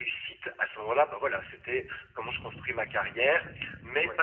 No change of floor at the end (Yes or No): Yes